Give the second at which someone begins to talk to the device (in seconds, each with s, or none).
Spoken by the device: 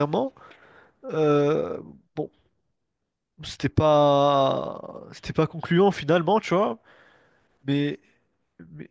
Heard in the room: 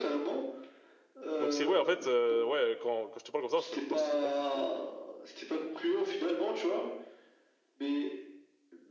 1.4 s